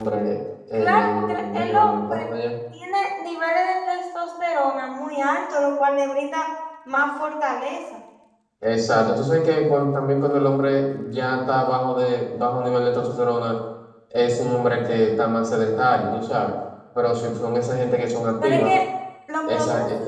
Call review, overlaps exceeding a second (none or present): present